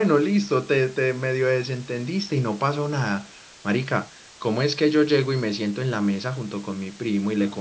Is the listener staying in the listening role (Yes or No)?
Yes